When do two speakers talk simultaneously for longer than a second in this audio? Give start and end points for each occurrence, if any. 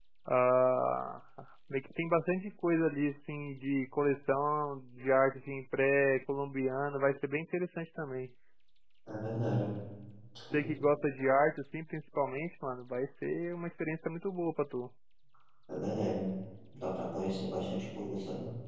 none

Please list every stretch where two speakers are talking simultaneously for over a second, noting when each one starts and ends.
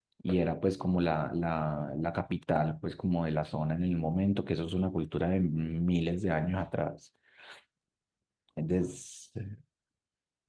none

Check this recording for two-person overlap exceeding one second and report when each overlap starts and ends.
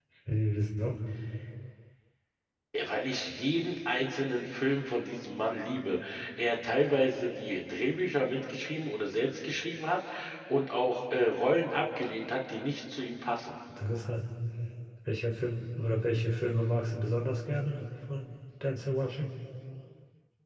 none

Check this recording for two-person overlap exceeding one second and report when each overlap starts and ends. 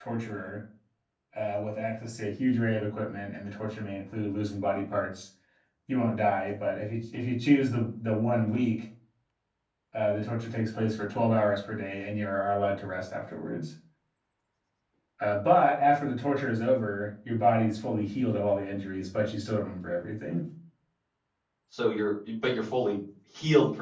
none

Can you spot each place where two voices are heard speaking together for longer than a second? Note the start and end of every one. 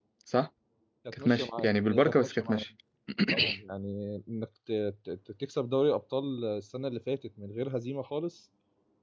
1.2-2.6

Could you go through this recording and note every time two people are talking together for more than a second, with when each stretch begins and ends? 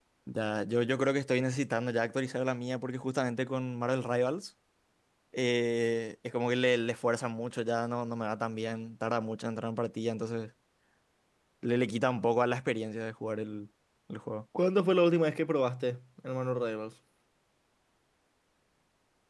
none

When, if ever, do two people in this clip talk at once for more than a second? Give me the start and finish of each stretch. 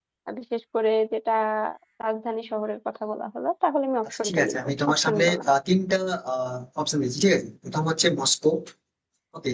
4.0-5.4

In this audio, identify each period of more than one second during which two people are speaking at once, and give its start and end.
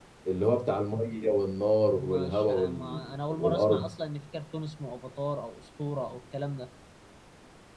1.9-3.8

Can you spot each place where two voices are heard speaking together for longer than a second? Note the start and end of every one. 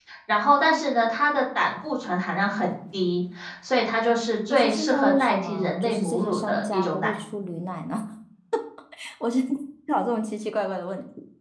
4.5-7.1

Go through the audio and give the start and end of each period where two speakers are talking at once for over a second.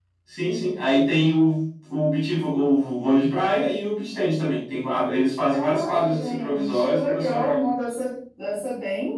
5.5-7.6

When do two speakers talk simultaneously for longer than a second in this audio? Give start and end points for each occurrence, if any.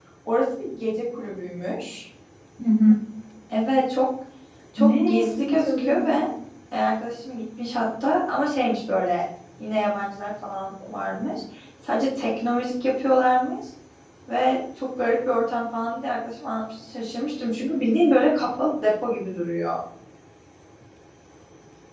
4.8-6.2

